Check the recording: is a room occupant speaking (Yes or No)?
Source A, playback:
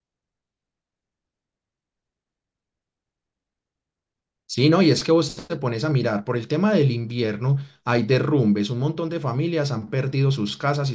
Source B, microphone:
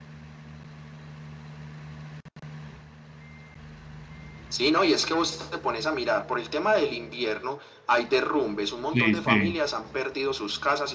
Yes